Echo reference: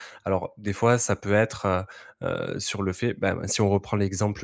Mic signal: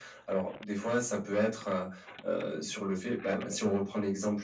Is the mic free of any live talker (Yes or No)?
Yes